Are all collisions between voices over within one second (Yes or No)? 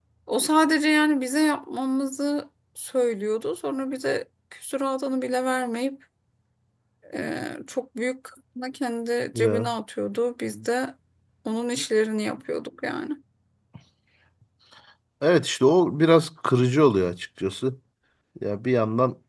Yes